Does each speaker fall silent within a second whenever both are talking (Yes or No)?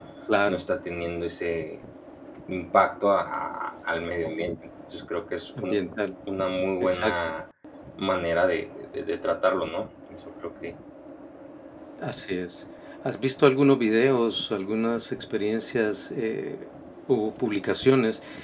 Yes